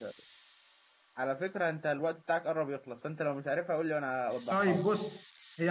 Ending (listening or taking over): taking over